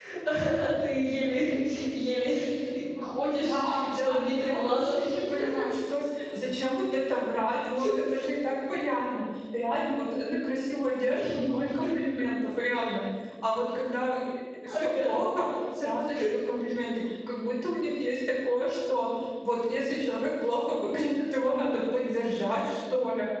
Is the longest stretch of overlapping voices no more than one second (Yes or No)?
No